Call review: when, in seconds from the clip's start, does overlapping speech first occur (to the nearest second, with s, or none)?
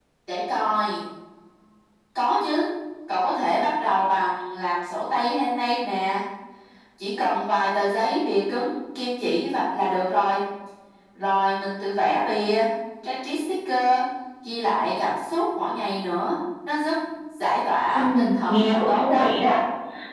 18 s